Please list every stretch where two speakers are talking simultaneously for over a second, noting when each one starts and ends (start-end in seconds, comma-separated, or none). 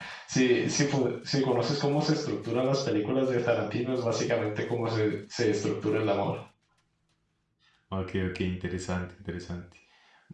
none